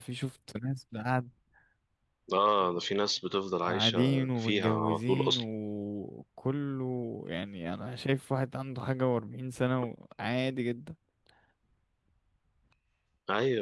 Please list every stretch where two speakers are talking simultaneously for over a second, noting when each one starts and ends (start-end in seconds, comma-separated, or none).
3.6-5.4